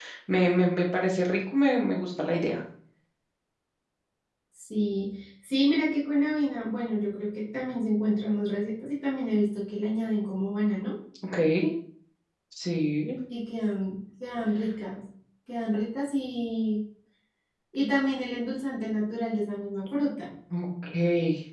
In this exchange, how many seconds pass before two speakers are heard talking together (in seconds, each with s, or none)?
none